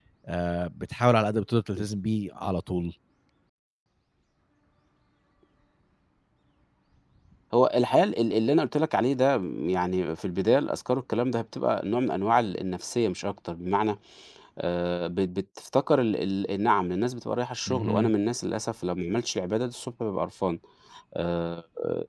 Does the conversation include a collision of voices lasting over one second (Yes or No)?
No